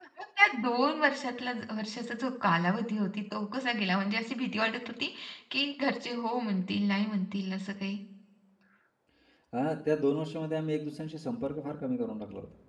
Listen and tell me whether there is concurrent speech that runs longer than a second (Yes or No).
No